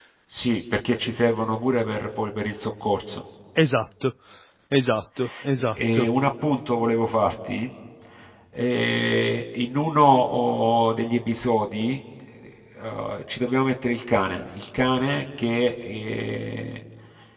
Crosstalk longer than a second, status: none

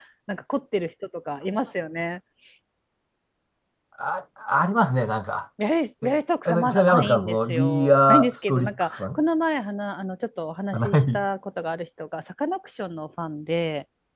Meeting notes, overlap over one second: present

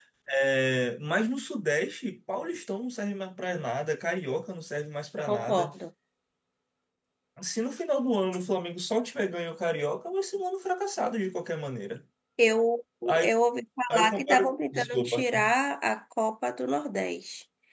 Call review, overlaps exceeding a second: present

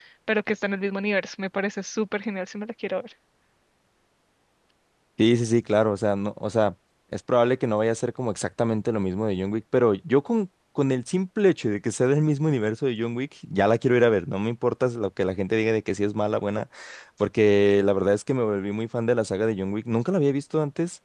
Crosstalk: none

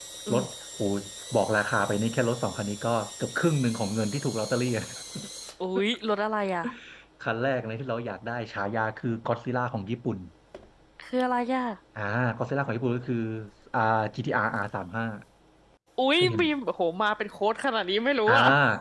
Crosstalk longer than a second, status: none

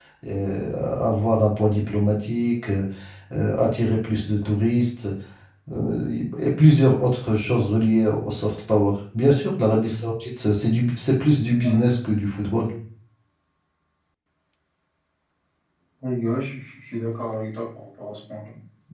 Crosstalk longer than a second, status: none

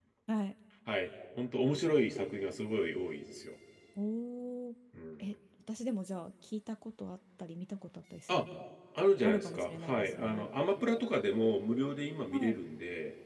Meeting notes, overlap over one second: present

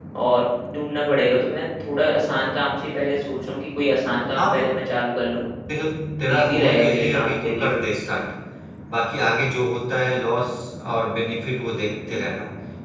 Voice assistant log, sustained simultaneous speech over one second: present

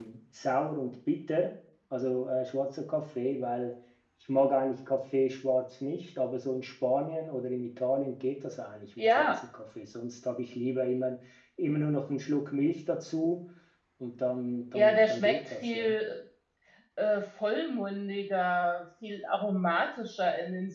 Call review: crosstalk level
present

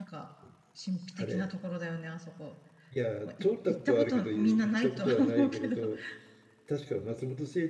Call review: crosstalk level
present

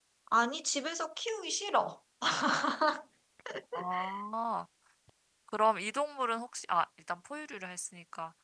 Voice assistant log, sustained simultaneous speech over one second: none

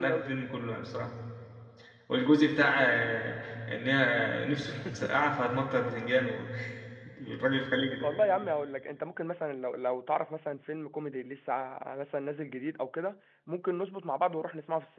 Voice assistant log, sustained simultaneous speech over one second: none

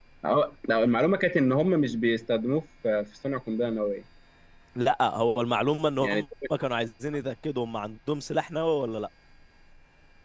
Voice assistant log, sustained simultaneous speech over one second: none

